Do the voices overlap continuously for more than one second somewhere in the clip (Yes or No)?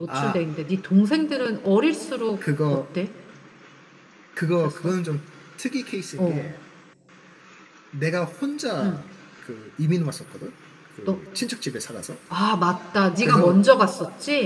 No